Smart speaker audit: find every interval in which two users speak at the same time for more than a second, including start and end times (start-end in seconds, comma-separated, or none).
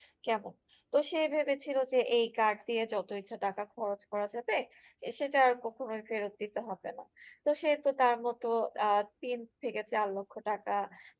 none